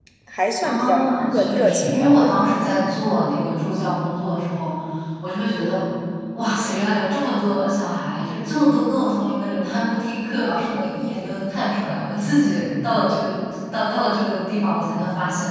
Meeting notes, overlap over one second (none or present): present